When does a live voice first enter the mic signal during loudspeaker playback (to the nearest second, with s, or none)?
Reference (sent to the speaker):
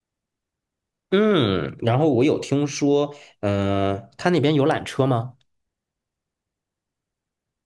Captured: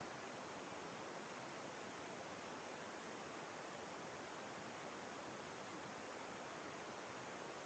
none